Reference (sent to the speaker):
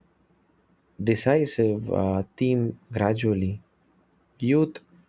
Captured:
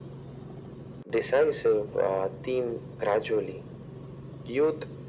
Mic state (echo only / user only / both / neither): echo only